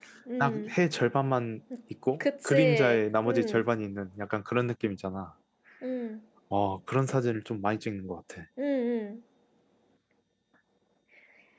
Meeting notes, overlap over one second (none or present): present